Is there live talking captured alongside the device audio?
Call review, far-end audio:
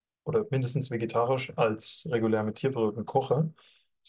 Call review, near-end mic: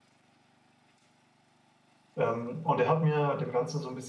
Yes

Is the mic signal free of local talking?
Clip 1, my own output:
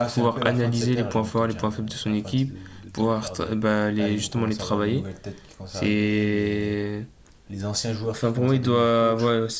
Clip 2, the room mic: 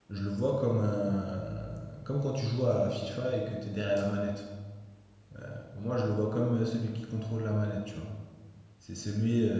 No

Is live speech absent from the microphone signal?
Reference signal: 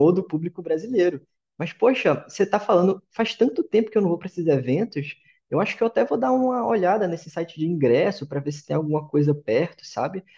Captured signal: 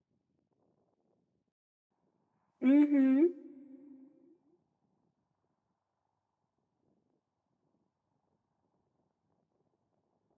No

